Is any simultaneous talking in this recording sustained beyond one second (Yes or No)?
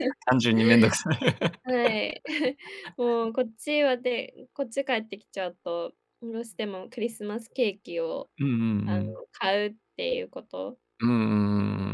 No